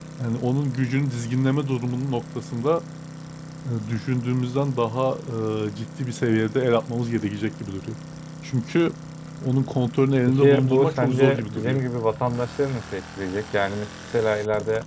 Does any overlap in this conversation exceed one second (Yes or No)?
Yes